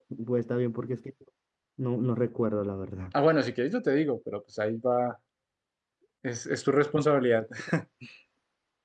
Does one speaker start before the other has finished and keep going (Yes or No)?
No